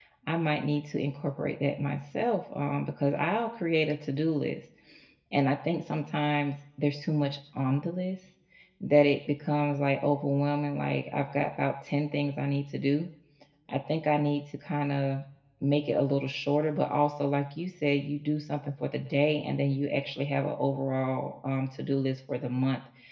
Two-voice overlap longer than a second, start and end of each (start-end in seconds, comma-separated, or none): none